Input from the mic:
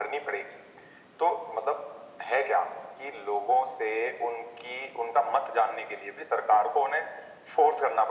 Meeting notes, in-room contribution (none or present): none